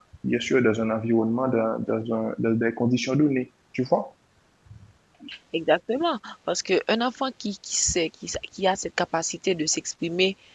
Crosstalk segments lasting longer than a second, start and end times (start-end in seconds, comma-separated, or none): none